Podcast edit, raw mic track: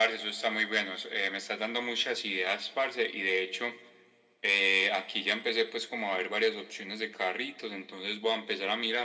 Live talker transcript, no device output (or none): none